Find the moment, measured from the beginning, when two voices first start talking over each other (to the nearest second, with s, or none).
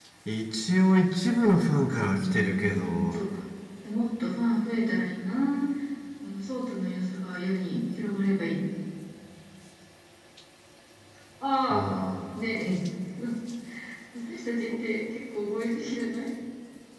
2 s